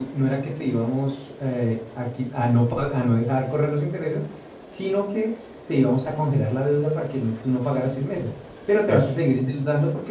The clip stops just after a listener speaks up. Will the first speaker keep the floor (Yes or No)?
Yes